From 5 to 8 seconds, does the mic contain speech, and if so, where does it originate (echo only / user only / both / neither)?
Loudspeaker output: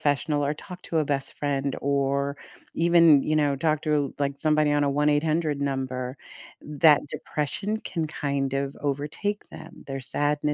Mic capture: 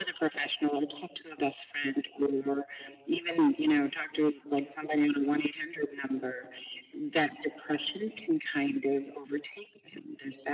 echo only